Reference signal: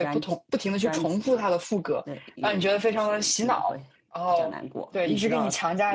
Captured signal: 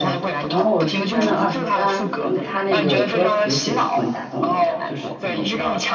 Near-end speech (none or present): present